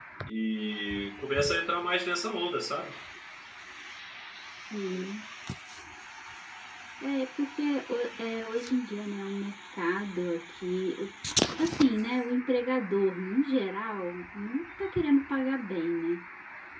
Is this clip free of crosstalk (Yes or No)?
Yes